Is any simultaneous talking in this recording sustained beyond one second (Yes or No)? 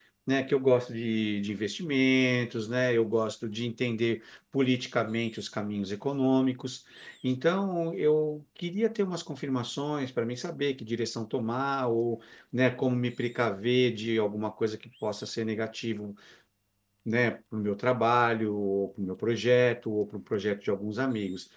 No